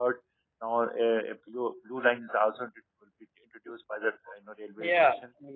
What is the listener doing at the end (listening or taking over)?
taking over